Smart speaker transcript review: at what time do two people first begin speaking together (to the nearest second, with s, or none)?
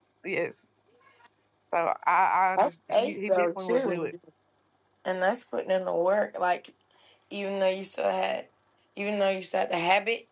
3 s